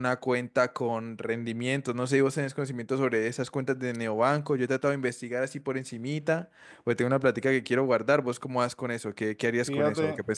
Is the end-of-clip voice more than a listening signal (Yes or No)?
Yes